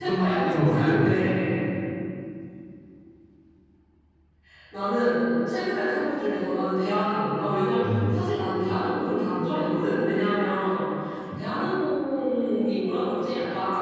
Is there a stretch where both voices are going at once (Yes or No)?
Yes